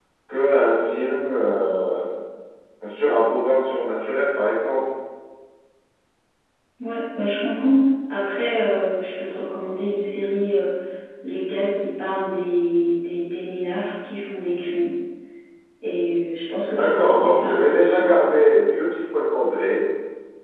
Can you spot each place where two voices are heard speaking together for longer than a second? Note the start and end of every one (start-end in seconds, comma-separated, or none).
16.8-18.1